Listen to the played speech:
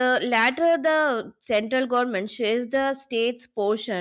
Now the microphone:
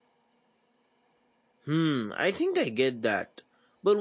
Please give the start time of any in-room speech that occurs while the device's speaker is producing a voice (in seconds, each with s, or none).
1.6 s